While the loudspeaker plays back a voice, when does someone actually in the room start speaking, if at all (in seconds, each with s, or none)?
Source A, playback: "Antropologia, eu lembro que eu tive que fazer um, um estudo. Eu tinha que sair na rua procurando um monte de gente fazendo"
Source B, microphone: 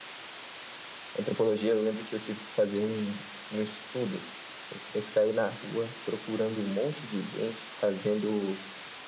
none